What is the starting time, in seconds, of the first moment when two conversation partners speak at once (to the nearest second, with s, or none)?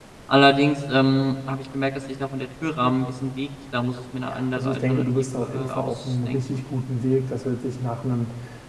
4 s